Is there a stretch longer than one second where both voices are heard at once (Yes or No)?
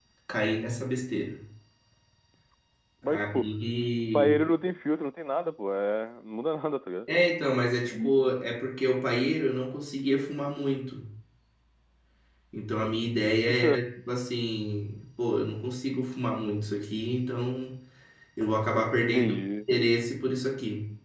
No